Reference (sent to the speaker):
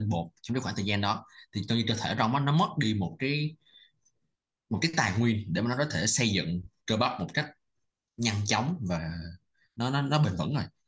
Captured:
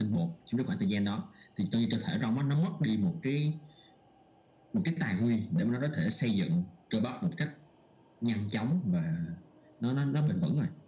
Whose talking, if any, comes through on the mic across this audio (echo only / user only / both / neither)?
echo only